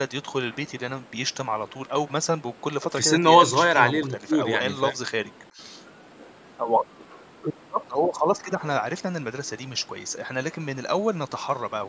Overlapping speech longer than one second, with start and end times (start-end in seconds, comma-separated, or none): 3.0-4.9